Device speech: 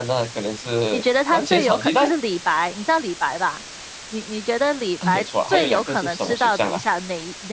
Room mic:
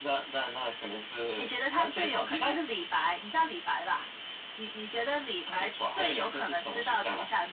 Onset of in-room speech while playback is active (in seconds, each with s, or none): none